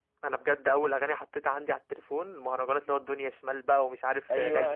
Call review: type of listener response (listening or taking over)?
taking over